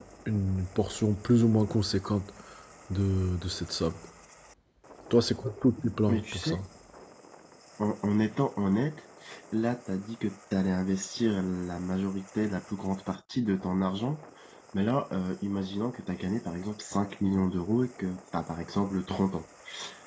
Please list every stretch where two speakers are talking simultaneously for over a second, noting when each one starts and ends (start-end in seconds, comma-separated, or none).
none